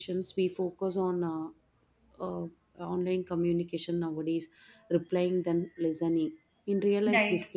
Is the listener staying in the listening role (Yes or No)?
Yes